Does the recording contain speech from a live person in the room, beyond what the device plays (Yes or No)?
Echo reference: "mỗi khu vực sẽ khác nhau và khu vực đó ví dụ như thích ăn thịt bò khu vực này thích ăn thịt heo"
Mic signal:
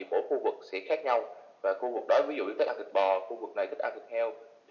No